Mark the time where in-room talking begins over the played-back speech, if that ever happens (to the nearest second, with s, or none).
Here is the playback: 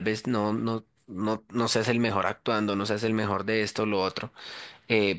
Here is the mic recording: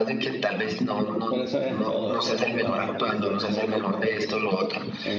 1 s